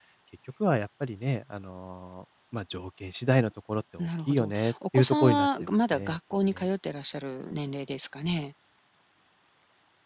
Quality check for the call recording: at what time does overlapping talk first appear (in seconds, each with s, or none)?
4.0 s